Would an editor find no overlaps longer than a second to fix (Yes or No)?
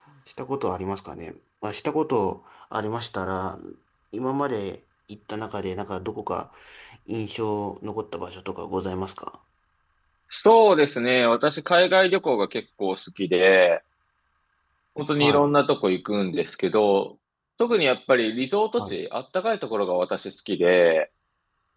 Yes